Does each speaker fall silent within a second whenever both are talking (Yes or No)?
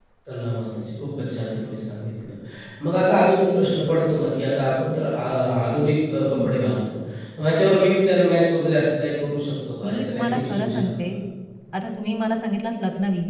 No